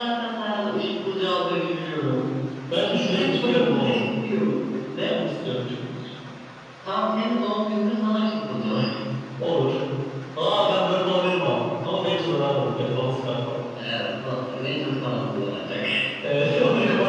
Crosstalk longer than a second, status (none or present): present